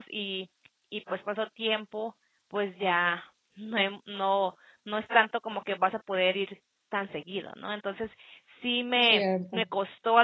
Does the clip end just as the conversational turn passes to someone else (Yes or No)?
No